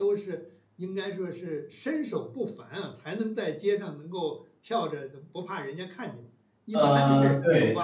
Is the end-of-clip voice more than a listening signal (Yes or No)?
Yes